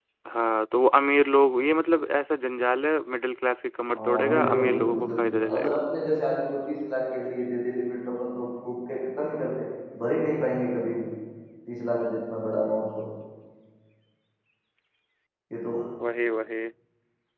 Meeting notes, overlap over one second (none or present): present